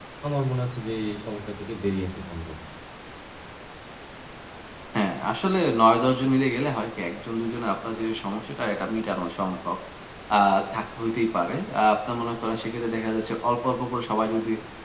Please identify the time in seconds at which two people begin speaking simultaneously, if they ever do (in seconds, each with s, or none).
none